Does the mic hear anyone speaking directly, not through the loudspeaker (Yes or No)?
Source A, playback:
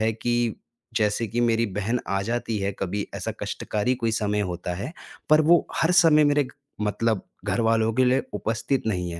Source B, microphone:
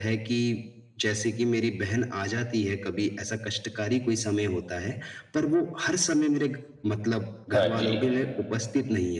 Yes